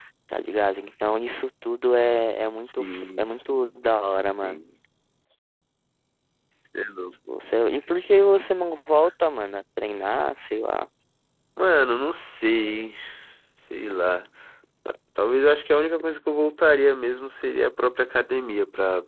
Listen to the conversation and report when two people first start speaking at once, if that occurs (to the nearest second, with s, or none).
3 s